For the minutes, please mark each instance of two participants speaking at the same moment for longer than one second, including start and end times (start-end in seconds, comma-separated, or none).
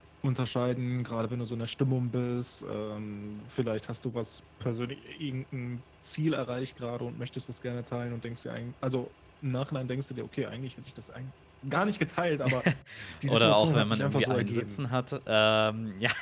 13.2-14.8